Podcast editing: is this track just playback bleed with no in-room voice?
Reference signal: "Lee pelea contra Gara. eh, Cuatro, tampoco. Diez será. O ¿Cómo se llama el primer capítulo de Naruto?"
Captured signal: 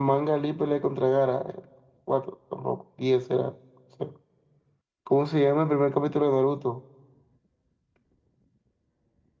Yes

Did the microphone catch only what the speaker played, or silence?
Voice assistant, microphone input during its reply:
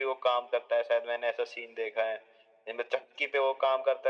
Yes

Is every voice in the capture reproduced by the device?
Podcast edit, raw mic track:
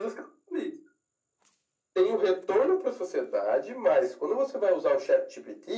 Yes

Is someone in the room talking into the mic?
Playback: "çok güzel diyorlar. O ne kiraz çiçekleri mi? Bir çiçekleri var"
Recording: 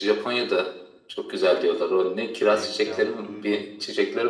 Yes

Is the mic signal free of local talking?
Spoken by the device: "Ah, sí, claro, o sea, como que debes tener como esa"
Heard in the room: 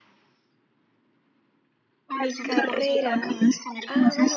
No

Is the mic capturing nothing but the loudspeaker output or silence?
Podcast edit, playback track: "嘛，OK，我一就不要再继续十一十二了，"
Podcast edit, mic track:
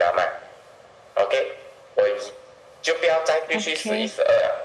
No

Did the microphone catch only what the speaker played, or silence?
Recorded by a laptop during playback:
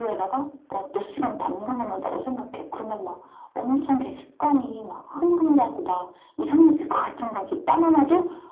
Yes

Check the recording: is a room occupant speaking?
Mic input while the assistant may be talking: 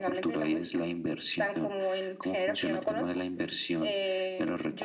No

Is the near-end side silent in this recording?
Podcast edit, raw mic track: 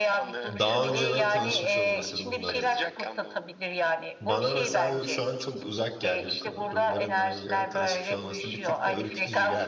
No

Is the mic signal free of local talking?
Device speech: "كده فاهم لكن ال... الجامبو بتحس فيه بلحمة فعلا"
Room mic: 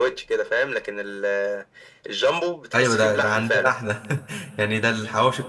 No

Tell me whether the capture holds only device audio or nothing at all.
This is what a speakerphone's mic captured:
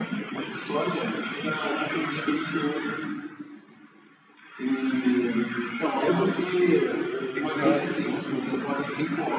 No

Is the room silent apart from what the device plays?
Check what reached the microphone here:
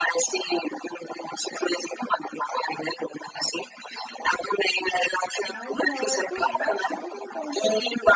No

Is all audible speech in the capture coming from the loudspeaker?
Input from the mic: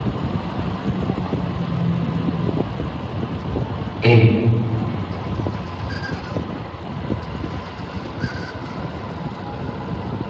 No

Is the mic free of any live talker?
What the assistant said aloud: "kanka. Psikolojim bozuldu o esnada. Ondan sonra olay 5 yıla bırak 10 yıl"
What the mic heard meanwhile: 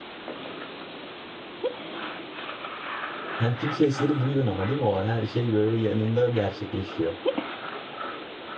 No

